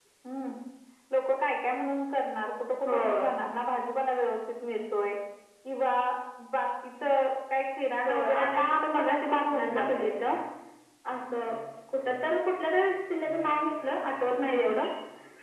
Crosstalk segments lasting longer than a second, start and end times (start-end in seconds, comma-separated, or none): 8.1-10.2